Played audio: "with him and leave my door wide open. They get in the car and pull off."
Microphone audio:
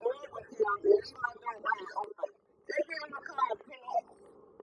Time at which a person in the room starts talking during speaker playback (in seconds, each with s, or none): none